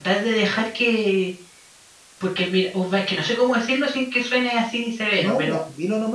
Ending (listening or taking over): taking over